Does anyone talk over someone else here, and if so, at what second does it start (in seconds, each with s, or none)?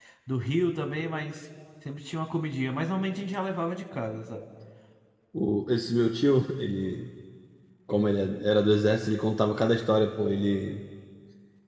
none